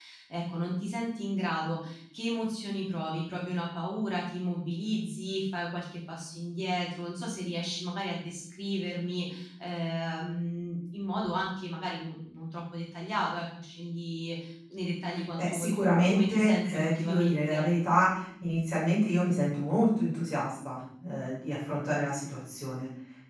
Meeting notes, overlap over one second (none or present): present